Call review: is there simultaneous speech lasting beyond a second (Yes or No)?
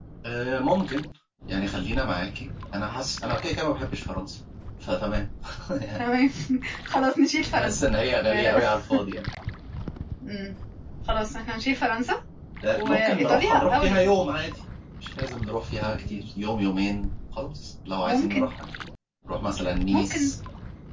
Yes